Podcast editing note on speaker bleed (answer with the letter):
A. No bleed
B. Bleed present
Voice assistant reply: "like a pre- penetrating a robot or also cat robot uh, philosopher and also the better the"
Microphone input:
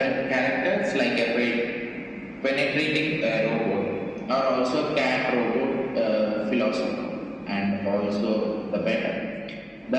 B